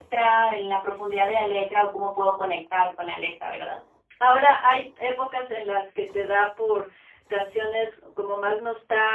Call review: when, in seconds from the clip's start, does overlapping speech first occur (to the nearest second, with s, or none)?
none